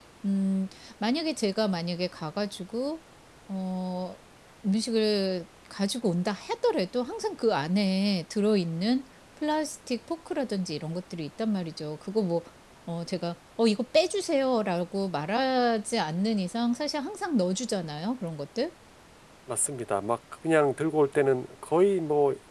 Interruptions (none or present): none